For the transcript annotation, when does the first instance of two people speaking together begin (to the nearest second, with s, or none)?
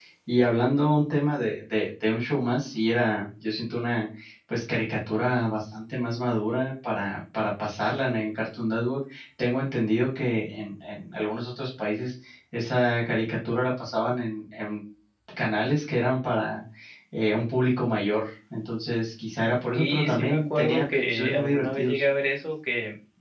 20 s